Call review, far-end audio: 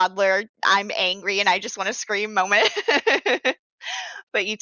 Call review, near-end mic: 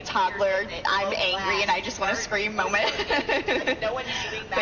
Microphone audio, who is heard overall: both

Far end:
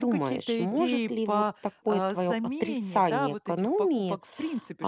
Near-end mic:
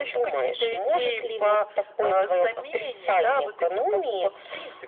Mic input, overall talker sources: echo only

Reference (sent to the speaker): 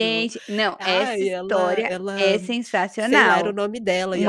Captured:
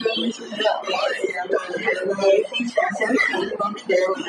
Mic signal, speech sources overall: echo only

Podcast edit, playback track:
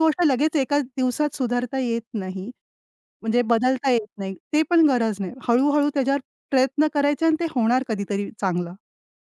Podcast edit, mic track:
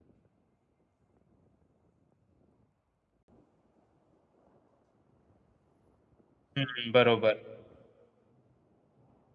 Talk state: user only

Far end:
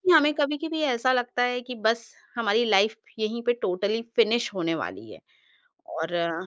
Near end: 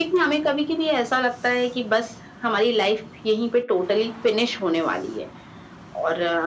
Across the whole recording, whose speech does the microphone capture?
echo only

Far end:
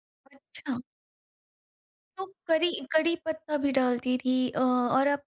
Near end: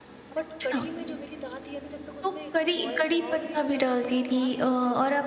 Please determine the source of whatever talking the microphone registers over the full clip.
both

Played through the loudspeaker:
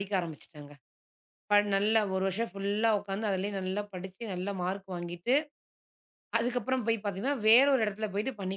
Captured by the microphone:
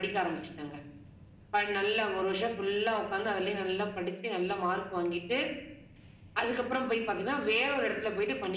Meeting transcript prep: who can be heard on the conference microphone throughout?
echo only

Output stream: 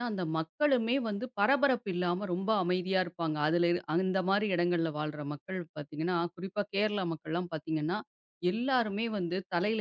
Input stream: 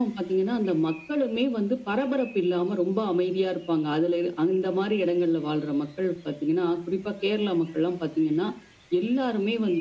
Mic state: echo only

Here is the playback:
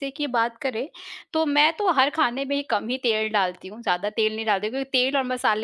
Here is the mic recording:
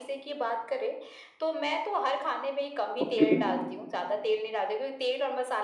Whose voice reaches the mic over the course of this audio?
both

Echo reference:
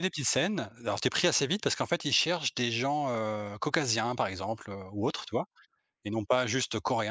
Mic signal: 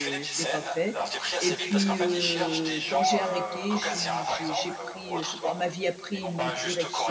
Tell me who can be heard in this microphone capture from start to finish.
both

